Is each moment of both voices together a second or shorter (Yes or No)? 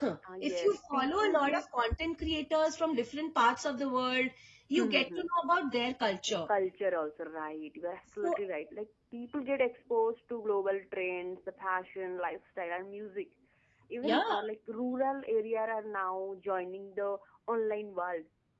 No